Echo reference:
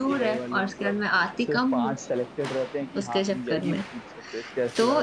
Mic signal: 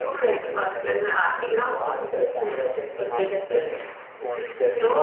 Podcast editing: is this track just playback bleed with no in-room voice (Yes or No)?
No